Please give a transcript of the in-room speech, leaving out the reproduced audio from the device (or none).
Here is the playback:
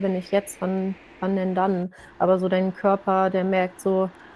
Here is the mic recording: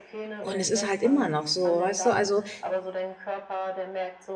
Und es ist halt immer noch so, weißt du? Also,